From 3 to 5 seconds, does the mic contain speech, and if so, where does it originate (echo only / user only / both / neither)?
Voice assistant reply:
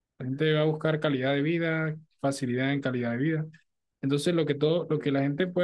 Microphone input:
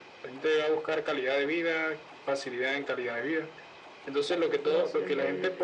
both